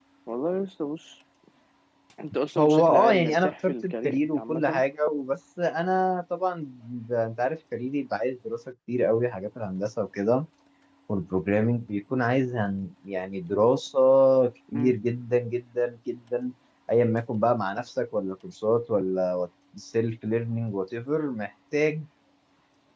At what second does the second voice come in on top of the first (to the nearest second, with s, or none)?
3 s